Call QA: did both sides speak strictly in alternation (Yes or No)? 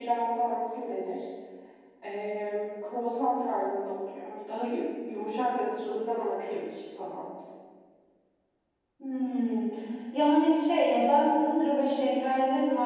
Yes